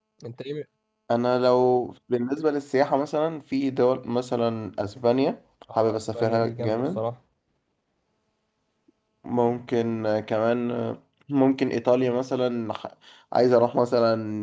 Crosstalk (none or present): present